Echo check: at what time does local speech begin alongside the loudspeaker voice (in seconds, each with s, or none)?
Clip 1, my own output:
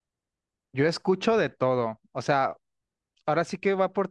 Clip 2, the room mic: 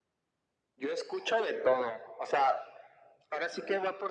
none